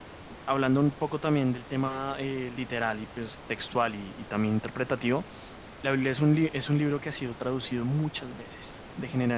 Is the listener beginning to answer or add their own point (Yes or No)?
No